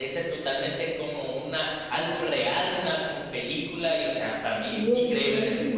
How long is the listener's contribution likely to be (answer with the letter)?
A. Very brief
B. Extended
B